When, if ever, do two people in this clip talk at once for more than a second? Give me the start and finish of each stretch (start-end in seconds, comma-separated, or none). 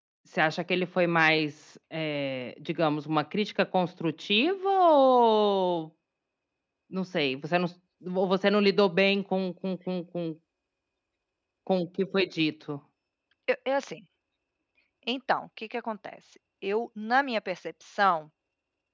none